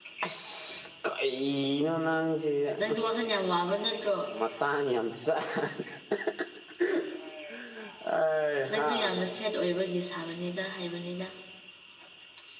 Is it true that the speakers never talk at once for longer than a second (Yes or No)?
Yes